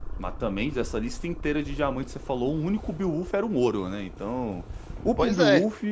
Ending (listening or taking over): listening